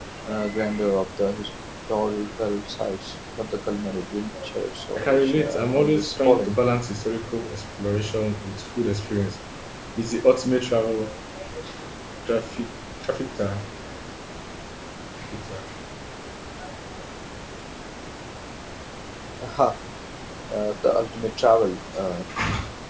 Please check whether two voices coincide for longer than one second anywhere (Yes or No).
Yes